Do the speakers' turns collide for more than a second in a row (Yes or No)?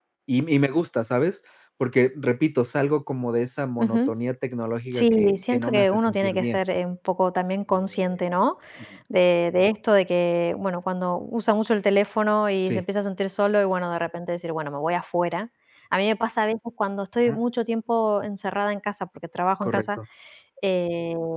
Yes